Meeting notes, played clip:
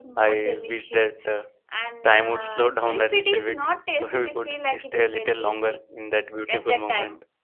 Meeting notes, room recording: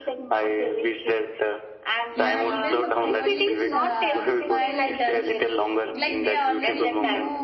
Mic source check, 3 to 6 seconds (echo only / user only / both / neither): both